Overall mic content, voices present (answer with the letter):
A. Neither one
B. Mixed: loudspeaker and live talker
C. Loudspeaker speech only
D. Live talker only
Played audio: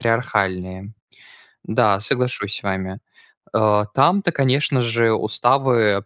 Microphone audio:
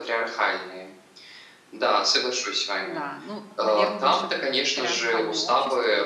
B